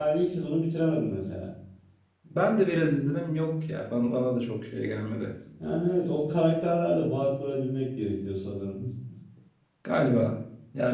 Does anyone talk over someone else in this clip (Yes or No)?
No